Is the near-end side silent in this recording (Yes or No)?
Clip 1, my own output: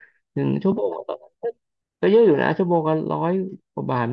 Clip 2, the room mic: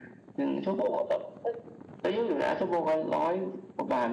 Yes